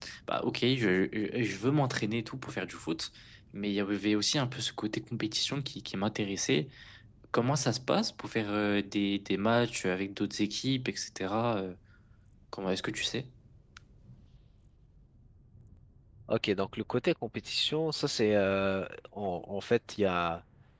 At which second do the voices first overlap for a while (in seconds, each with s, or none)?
none